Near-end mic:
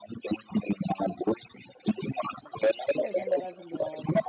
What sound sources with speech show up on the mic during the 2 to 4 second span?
both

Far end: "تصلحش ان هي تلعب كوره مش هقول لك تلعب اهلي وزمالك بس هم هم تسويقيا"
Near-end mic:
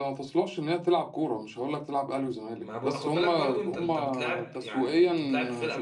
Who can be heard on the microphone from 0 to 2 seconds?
echo only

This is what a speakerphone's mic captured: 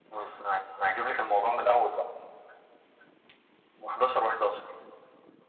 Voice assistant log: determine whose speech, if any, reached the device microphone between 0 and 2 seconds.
echo only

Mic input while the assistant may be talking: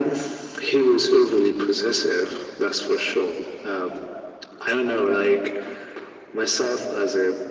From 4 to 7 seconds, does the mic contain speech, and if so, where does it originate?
echo only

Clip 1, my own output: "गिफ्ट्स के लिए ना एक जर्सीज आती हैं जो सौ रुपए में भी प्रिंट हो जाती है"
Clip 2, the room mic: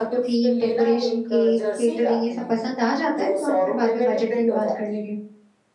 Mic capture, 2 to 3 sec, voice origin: both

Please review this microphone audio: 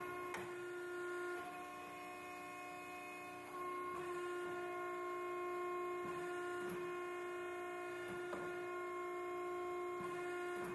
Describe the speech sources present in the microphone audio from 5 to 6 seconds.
neither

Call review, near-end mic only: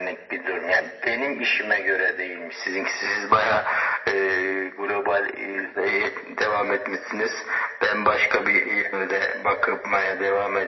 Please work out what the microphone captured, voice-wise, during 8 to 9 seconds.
echo only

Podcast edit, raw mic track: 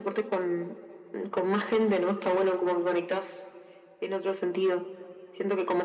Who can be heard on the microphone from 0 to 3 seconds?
echo only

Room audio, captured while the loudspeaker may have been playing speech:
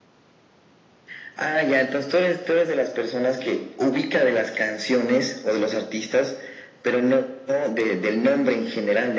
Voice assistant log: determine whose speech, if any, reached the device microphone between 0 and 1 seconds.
neither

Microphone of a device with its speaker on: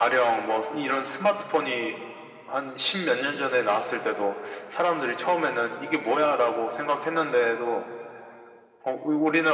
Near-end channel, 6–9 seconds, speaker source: echo only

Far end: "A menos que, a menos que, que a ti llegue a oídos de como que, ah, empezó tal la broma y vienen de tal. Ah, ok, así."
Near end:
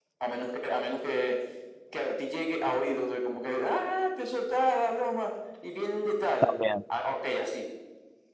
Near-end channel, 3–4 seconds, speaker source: echo only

